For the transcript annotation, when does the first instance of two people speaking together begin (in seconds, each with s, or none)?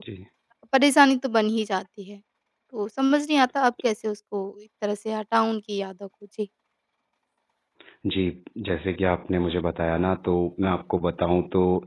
none